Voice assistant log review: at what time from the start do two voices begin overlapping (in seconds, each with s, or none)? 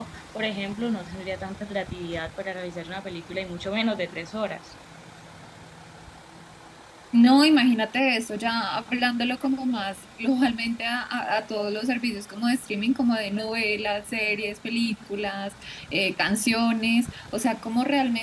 none